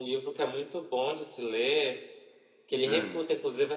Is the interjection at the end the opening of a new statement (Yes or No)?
No